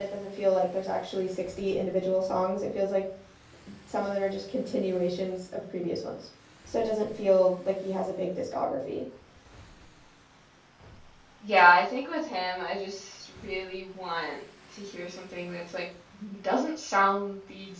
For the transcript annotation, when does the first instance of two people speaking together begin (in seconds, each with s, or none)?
none